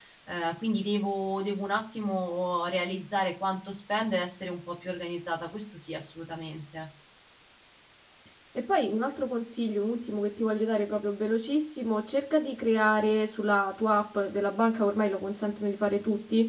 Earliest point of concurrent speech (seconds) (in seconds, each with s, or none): none